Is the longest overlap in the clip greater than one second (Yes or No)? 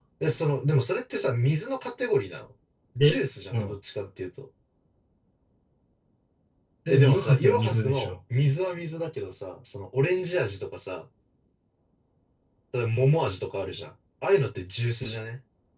Yes